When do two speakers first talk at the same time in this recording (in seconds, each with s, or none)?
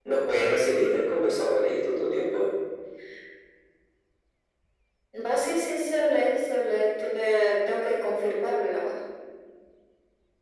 none